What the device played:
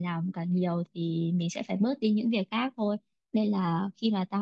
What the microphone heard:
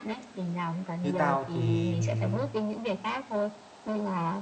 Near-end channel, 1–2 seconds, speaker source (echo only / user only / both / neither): both